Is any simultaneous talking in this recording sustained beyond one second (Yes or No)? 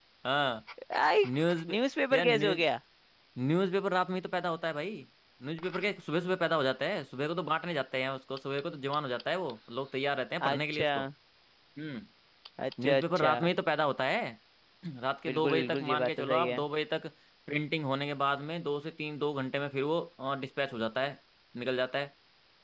Yes